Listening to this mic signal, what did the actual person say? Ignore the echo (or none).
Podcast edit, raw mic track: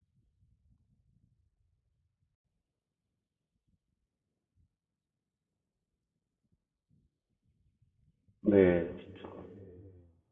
네 진짜